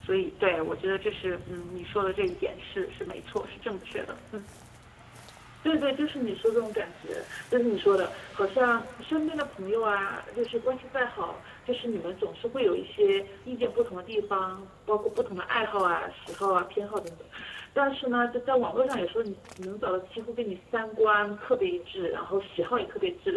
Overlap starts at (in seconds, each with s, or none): none